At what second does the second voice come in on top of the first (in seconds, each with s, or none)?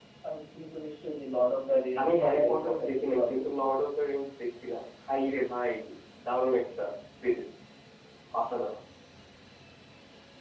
2.0 s